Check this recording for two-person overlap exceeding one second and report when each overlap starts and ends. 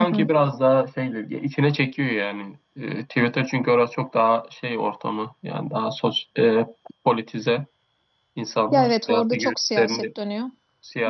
8.7-10.0

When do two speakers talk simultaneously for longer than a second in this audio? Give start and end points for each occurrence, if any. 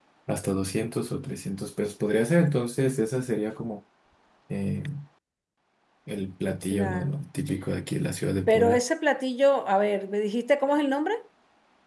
none

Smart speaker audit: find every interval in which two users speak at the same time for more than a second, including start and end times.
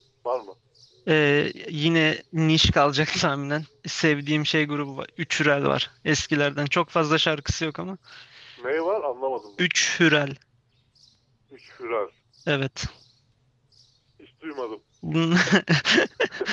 none

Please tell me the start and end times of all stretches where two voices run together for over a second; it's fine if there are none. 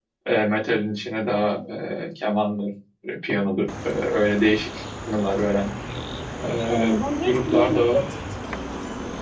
6.7-8.0

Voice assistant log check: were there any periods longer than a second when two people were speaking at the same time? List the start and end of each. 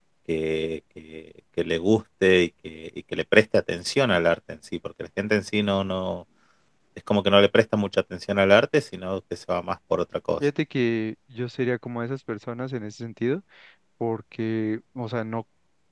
none

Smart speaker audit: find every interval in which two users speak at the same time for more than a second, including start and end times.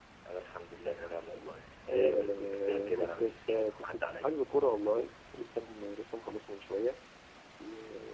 1.9-4.3

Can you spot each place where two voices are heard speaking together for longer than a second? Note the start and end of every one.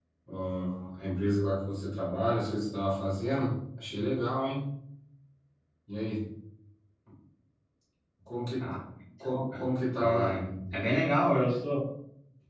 none

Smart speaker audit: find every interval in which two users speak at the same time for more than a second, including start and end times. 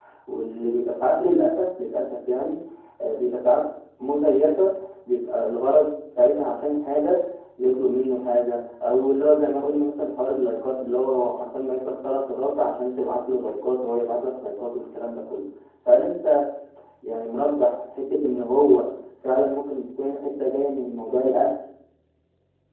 none

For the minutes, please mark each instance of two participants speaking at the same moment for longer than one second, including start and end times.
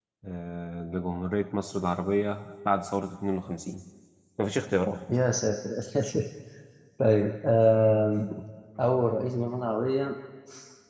none

